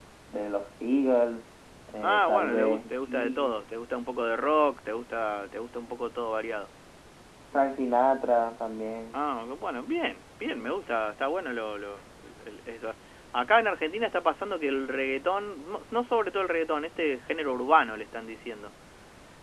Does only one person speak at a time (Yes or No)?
No